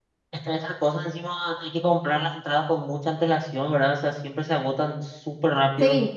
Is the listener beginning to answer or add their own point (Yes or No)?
Yes